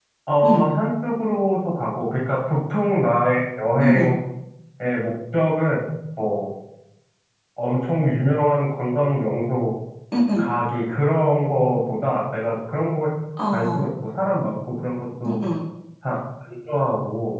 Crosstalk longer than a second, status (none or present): none